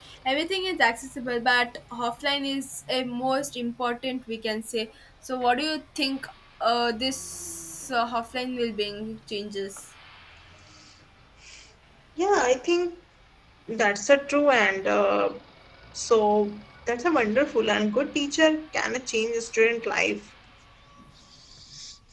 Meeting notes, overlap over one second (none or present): none